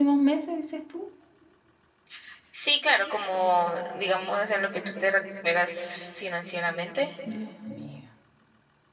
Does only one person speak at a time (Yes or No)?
Yes